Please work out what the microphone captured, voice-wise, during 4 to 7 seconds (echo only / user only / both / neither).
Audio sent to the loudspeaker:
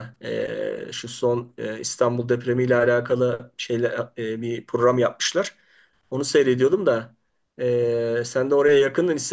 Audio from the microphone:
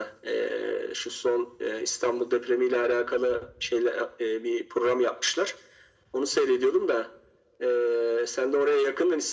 echo only